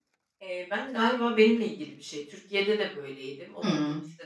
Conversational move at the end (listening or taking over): listening